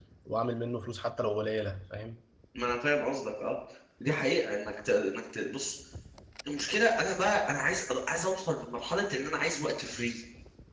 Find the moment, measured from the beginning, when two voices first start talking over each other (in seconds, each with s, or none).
none